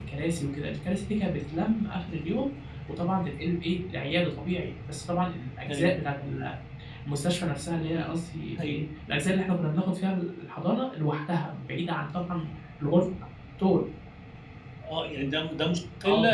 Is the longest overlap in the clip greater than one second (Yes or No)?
No